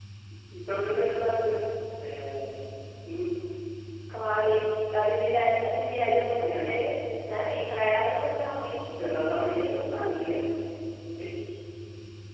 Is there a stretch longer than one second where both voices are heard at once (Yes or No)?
Yes